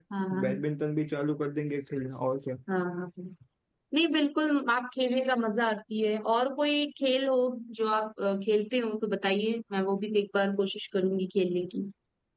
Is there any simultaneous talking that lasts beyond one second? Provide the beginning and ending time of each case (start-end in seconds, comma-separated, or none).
none